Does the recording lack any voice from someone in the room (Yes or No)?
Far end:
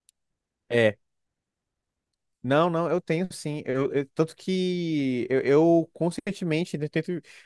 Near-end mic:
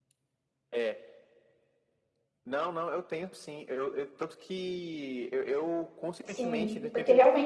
No